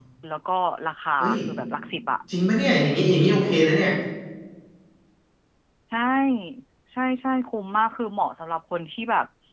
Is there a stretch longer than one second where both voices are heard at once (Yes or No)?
No